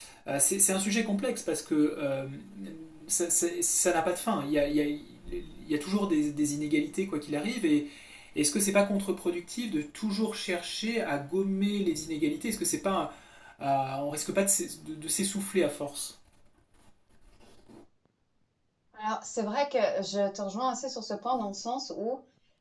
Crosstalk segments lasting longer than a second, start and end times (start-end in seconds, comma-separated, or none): none